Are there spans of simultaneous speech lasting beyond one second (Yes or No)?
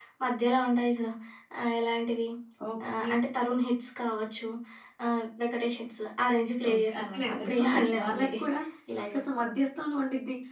Yes